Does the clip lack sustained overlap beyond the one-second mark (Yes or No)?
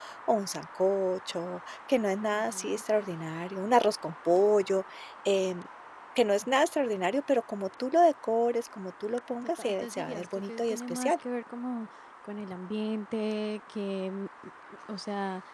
No